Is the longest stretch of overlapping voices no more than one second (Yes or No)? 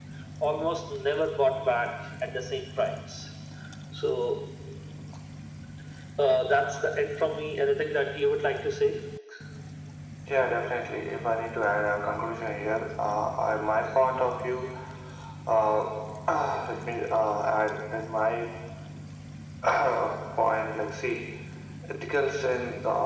Yes